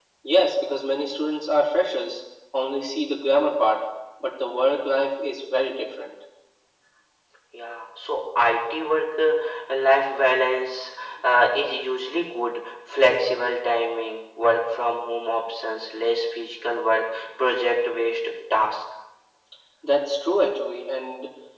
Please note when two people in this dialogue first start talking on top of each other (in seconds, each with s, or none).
none